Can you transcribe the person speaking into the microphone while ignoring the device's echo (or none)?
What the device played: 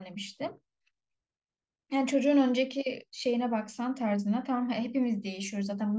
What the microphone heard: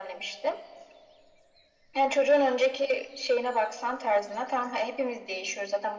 none